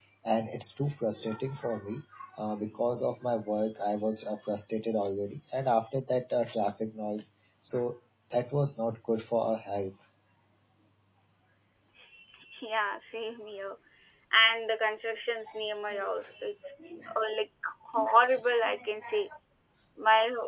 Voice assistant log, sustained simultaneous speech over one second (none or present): none